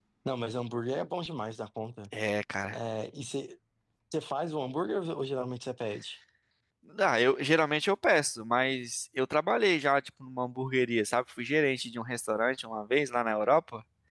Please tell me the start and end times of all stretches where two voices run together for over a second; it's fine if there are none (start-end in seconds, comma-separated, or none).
none